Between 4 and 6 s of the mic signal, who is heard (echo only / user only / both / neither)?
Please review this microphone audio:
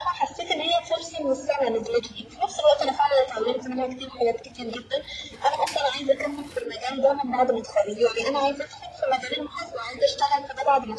echo only